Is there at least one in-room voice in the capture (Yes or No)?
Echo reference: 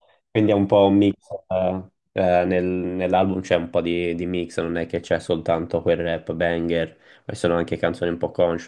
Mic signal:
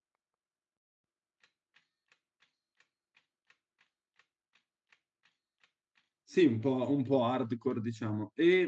Yes